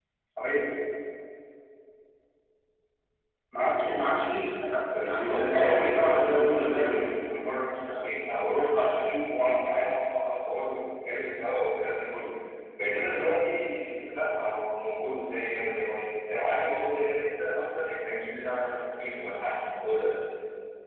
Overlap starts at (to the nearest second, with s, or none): 5 s